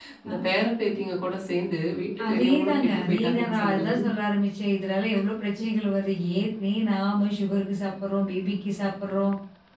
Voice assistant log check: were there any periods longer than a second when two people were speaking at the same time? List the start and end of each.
2.3-4.0

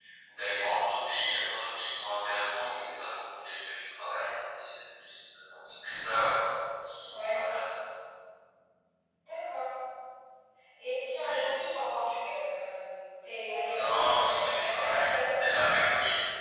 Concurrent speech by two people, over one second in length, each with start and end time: 13.6-15.3

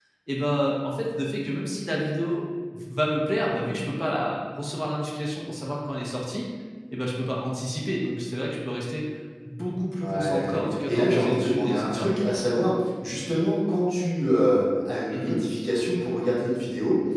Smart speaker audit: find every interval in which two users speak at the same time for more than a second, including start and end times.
10.0-12.1

